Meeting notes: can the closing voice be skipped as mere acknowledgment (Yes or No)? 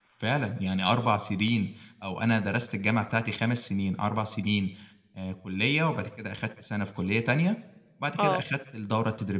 Yes